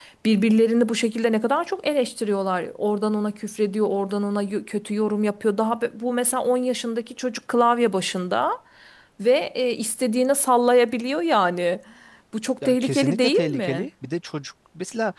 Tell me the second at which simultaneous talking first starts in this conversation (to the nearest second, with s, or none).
13 s